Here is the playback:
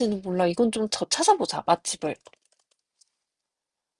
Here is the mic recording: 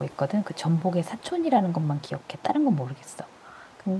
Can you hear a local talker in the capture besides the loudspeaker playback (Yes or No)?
Yes